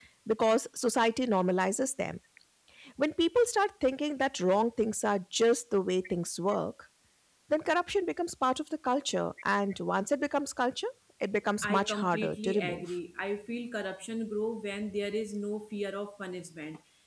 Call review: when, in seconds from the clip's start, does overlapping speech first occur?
11.6 s

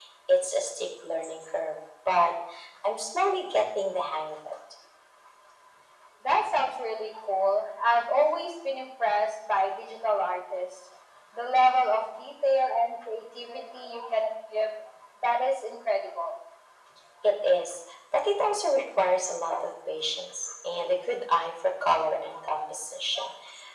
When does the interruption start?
none

